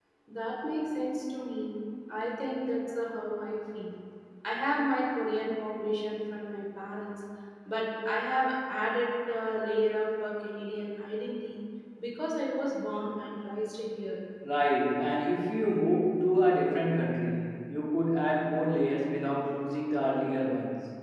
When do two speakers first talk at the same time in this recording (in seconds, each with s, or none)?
none